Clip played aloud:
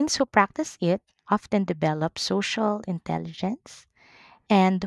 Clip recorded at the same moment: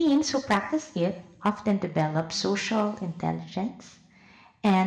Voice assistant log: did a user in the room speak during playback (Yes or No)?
No